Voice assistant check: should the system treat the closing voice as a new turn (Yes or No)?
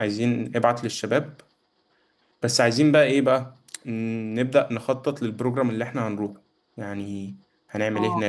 Yes